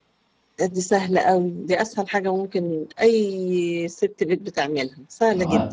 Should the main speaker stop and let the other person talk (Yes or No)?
Yes